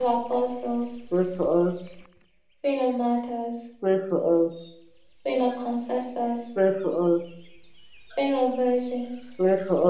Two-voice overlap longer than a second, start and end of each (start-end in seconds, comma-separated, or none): none